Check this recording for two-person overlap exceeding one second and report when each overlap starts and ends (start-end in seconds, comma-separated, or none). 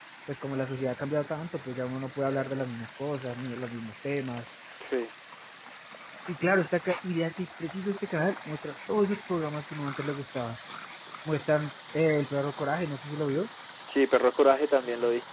none